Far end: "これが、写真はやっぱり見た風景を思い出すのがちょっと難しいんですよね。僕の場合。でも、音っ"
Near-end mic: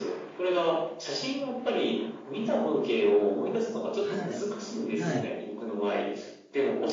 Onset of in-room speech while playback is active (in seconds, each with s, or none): 4.0 s